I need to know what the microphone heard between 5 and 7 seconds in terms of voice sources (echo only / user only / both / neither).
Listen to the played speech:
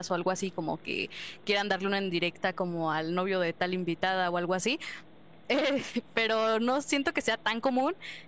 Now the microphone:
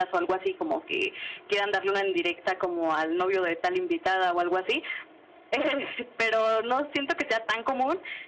echo only